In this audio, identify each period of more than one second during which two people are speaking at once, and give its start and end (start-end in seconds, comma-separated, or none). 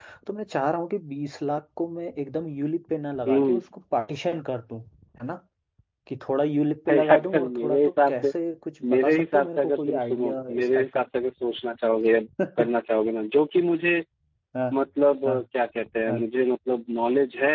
6.9-8.3, 8.9-11.0